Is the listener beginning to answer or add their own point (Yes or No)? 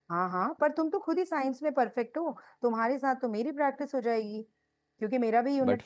No